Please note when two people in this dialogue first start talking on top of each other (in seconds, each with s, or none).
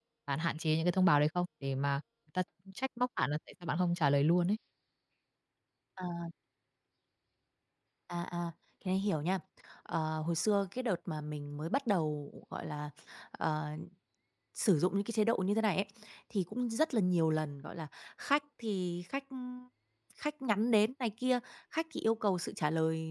none